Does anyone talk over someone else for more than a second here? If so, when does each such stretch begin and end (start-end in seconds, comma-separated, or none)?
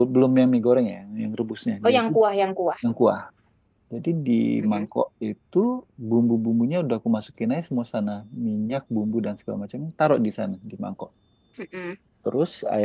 none